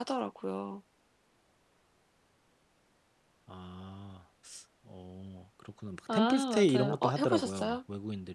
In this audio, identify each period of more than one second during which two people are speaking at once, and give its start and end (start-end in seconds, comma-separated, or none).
6.1-7.8